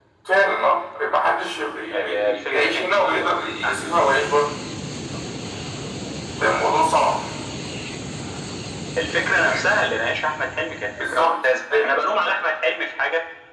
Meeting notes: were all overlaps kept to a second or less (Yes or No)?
No